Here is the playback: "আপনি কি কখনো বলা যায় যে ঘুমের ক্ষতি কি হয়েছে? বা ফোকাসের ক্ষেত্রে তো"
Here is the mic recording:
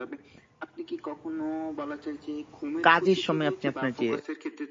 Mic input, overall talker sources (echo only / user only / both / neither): both